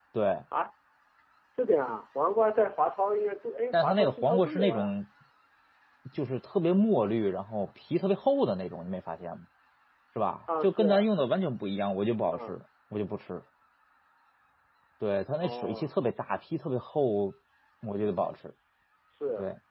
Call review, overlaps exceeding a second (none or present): present